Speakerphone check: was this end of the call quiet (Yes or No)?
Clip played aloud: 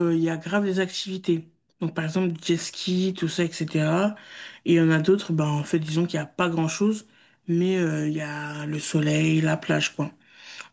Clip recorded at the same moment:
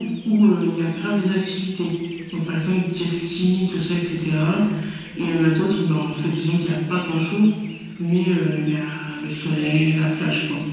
Yes